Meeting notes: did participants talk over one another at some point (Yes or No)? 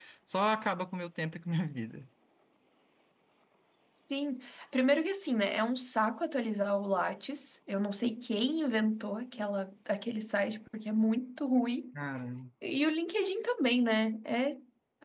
No